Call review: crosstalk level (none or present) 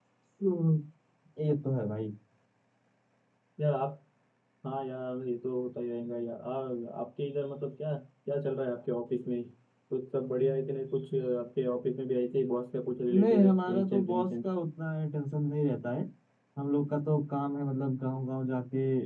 present